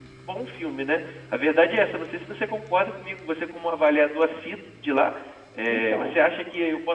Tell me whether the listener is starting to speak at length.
No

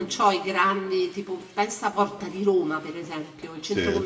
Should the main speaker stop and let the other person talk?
No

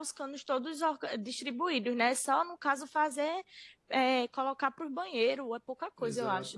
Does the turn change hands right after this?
Yes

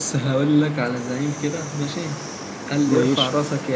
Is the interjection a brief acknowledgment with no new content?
Yes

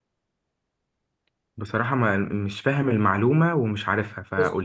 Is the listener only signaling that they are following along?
No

